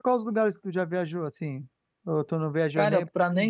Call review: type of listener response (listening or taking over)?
taking over